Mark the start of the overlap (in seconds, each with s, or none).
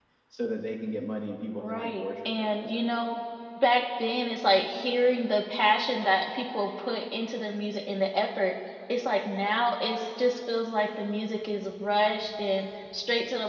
1.6 s